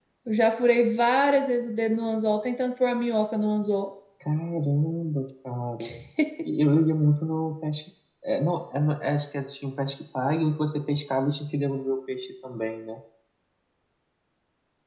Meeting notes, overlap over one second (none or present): none